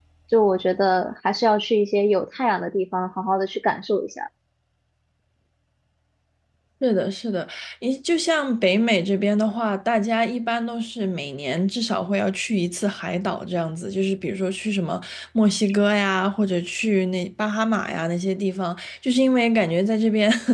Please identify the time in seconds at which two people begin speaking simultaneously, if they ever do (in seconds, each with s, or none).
none